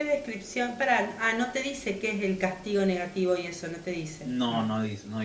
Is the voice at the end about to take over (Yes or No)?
Yes